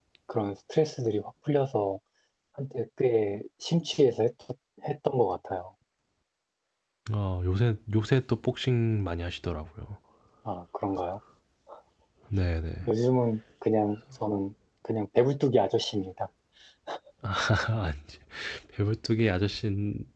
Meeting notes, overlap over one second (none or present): none